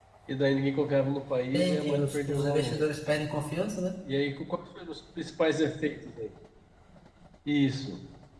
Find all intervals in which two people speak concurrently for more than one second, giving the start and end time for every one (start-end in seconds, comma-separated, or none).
1.5-2.8